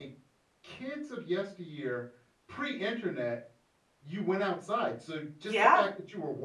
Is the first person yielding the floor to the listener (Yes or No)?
No